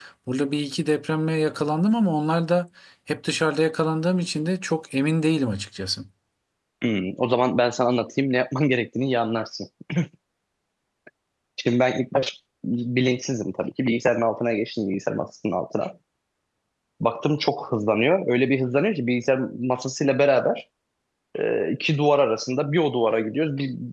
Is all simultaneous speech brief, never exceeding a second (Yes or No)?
Yes